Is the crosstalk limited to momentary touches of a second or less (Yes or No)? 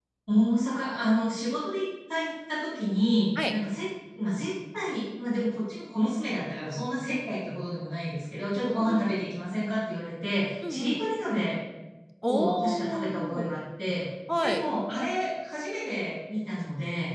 No